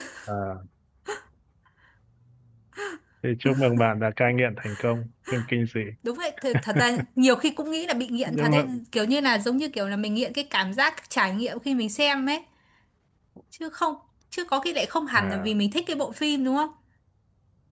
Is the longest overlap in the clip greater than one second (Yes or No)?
No